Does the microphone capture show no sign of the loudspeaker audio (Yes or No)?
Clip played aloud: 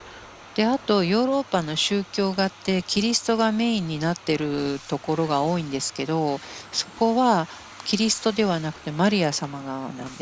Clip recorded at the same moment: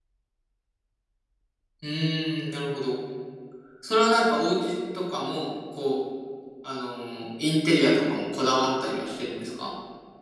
Yes